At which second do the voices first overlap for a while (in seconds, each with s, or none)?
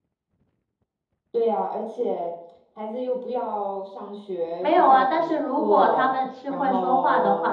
4.6 s